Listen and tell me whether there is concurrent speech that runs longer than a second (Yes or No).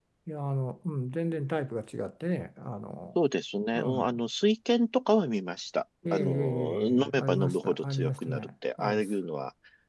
Yes